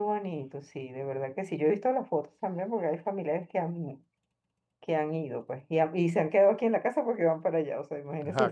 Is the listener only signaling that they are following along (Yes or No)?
Yes